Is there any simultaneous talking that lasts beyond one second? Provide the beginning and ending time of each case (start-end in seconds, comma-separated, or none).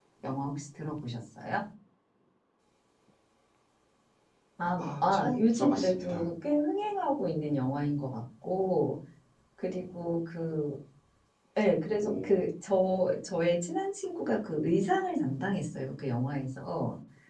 4.8-6.2